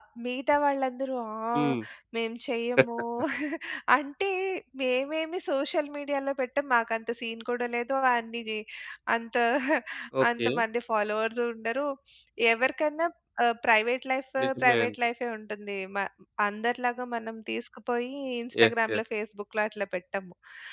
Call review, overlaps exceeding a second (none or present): none